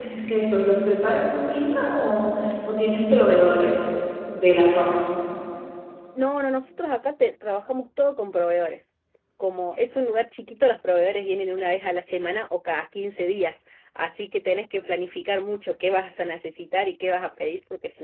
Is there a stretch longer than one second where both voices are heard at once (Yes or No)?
No